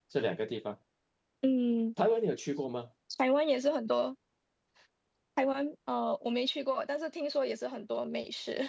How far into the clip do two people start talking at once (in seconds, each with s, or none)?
none